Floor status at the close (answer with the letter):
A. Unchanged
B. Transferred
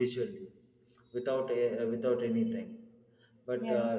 A